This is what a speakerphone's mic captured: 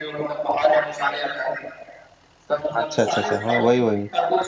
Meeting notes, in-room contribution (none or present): present